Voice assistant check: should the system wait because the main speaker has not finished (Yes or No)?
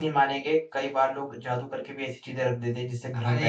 No